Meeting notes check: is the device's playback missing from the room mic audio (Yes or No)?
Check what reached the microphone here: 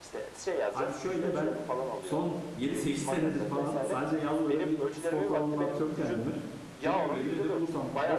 No